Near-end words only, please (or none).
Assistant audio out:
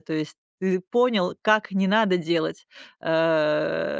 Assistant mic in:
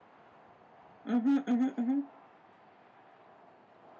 угу угу мгм.